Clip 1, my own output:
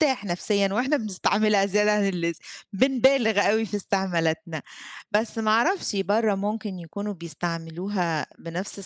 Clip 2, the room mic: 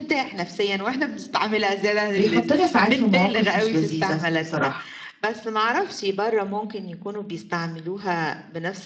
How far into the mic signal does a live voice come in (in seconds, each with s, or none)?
2.1 s